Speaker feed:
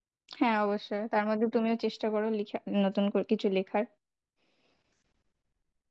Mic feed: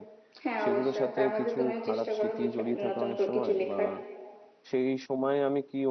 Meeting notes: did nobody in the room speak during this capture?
No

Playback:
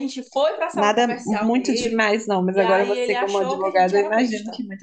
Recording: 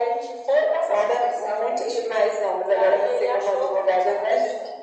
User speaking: No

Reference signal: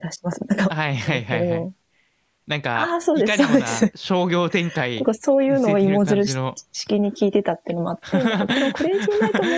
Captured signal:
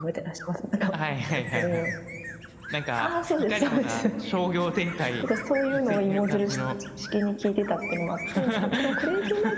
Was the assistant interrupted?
No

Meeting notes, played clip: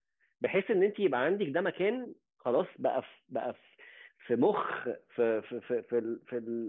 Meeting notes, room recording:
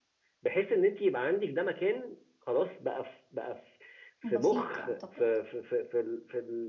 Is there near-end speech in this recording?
Yes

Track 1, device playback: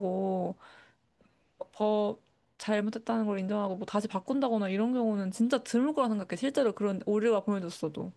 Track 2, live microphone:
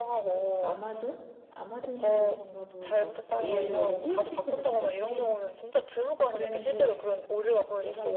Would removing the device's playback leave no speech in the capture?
No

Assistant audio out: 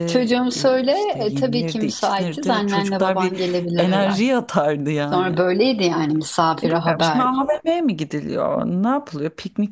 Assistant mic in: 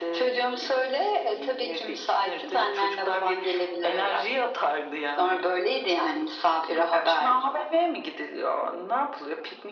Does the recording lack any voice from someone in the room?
Yes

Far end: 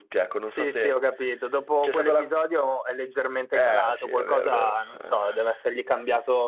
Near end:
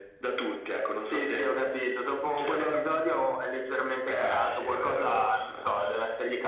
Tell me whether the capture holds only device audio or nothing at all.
Yes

